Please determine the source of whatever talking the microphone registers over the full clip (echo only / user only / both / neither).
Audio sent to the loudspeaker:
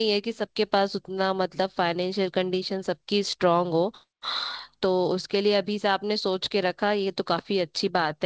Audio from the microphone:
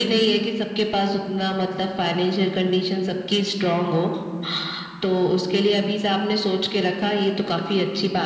echo only